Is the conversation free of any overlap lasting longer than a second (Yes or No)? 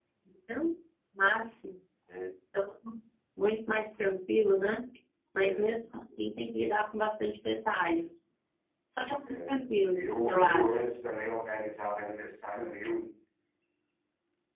No